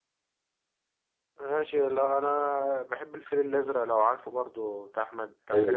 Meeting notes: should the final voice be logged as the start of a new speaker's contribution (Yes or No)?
Yes